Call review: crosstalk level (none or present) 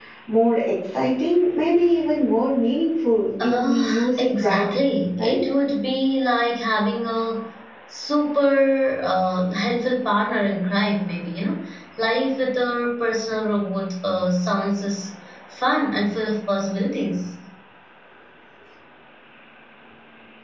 present